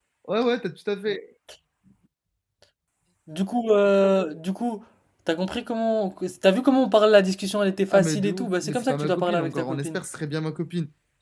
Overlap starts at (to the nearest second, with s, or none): 8 s